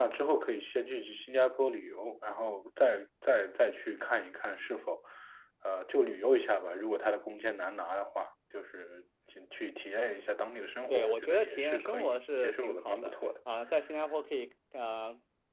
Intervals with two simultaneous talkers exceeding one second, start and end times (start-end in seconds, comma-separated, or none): 10.9-13.1